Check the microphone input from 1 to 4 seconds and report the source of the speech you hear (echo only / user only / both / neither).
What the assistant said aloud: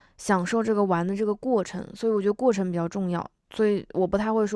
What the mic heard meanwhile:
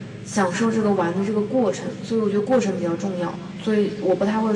echo only